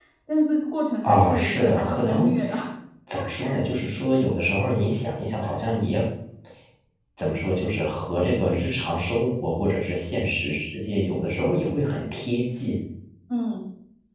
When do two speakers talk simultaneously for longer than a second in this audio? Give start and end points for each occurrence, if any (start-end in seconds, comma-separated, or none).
1.0-2.3